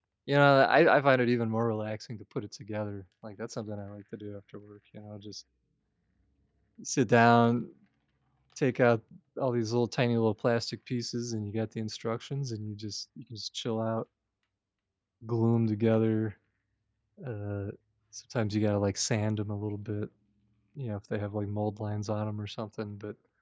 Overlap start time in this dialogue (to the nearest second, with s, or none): none